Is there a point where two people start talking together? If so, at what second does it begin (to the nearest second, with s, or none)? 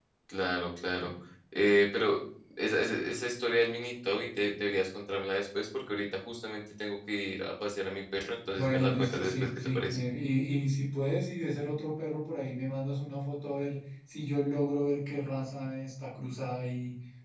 9 s